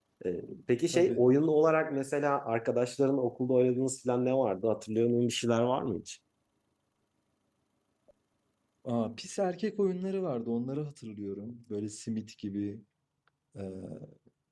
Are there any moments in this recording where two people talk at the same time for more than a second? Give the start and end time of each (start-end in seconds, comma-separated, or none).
none